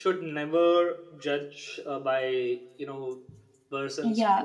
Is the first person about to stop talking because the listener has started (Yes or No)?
Yes